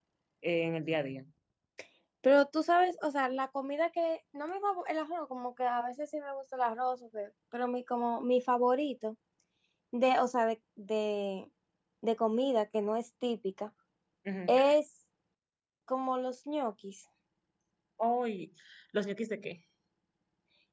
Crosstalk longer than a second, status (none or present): none